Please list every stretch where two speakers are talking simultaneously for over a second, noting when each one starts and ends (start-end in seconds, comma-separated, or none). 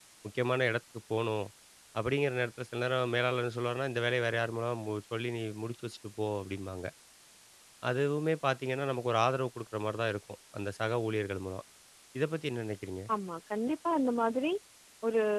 none